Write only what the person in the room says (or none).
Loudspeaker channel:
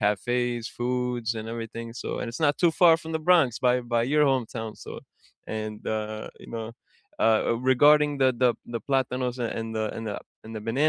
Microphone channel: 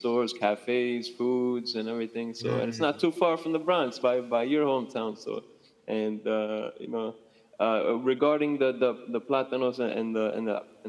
Mm.